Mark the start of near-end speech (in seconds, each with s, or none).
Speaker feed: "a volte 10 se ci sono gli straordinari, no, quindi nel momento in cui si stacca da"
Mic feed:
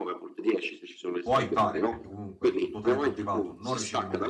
1.2 s